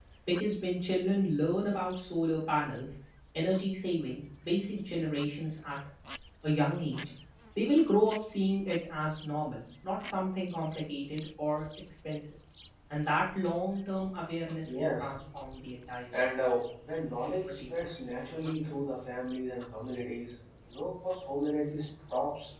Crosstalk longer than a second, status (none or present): none